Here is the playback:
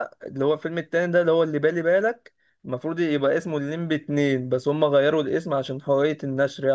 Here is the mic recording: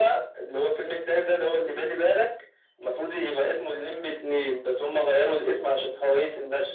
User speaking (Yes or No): No